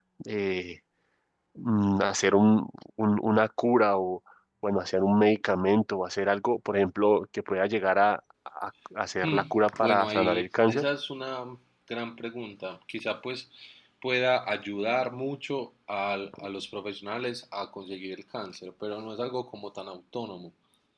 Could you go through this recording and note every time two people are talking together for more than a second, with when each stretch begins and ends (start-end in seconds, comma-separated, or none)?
9.2-10.8